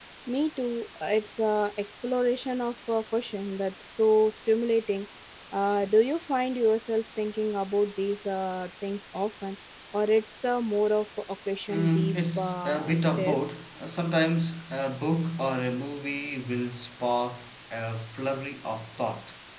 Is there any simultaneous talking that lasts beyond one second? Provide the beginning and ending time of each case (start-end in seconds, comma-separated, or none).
11.7-13.4